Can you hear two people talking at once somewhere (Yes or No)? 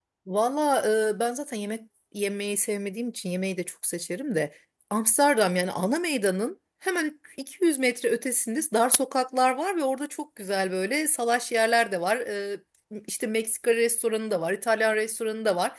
No